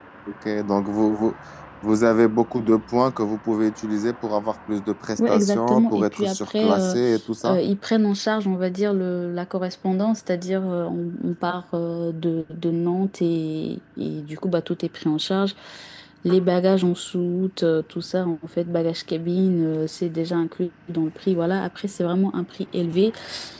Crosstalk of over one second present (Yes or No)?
Yes